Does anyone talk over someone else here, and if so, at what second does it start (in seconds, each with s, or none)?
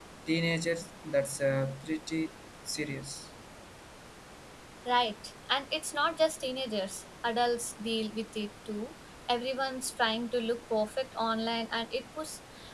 none